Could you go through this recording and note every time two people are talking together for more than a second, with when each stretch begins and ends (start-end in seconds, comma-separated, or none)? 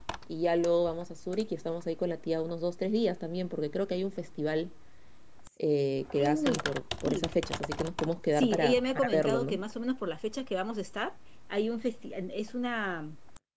8.3-9.6